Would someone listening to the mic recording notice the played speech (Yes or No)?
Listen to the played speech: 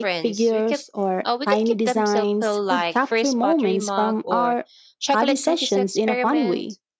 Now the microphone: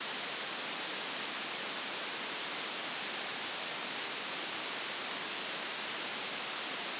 No